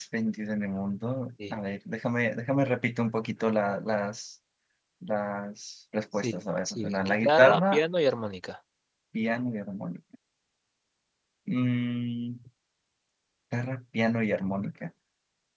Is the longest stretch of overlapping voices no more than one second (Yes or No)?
No